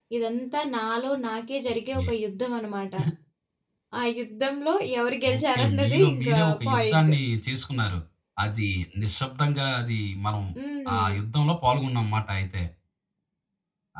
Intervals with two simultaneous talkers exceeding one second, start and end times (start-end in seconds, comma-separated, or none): 5.4-7.1